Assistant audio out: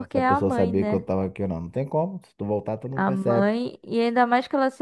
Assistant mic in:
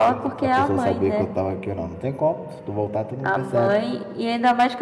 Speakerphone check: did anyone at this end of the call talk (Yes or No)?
No